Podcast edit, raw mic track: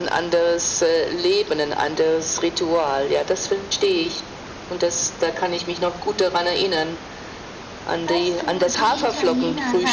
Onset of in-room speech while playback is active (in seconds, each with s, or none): 8.1 s